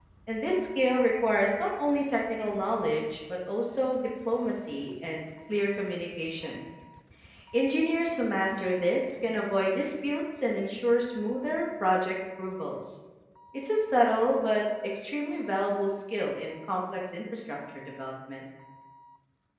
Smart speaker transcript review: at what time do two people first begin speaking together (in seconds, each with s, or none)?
none